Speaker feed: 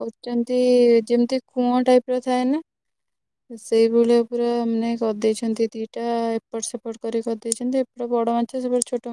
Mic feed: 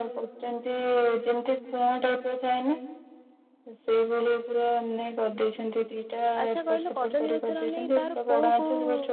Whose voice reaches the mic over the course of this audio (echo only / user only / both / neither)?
both